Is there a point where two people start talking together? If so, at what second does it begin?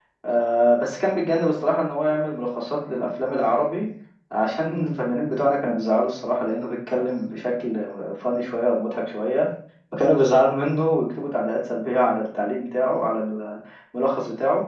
none

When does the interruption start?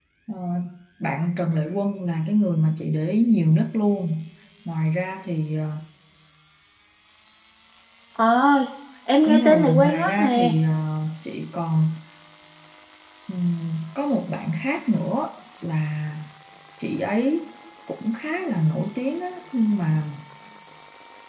9 s

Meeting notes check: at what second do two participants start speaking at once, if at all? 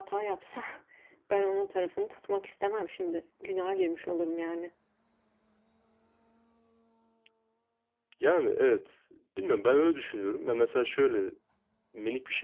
none

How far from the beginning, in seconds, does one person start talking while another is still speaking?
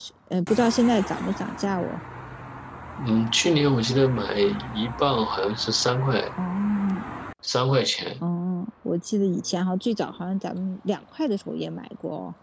none

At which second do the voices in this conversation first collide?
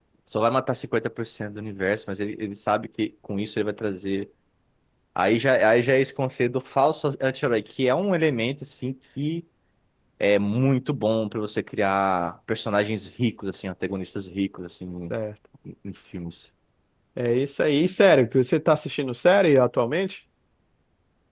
none

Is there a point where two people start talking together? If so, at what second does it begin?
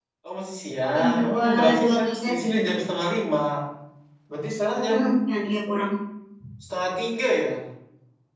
1 s

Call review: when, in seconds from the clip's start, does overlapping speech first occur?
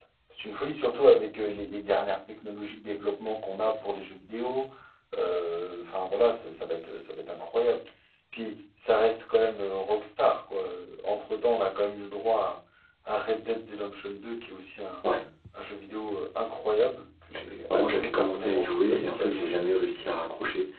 18 s

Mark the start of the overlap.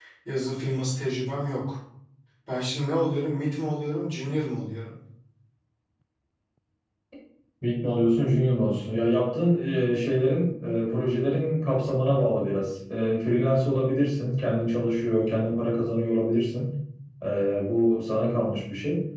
none

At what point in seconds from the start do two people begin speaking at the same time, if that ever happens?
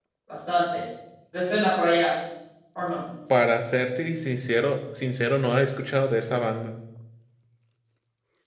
none

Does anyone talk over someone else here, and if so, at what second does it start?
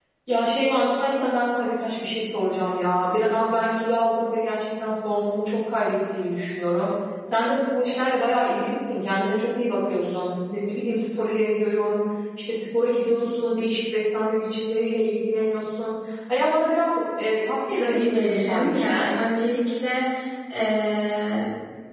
18 s

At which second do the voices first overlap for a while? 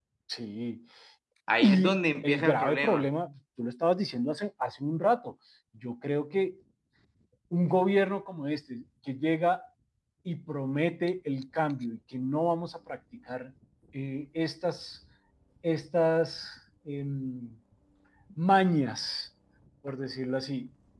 2 s

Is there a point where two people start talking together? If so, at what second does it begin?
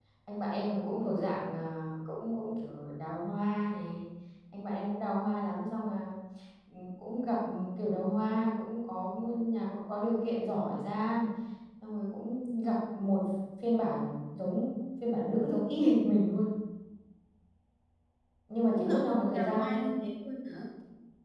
19 s

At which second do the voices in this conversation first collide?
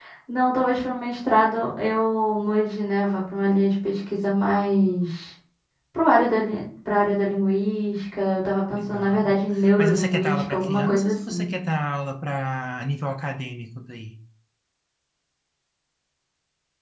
9 s

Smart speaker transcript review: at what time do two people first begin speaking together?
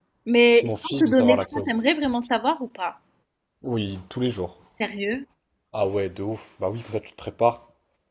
1 s

